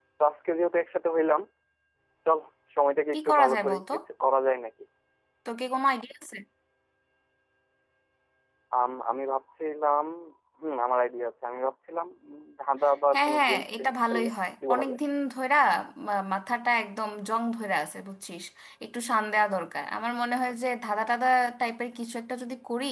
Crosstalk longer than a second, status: present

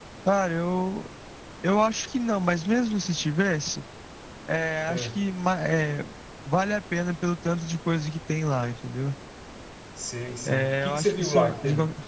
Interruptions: present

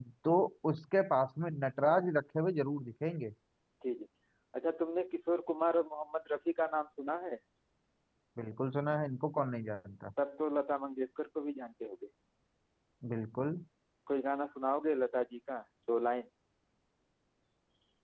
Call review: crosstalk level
none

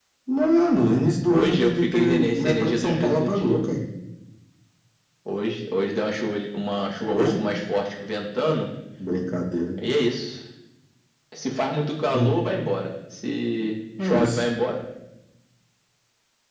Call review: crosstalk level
present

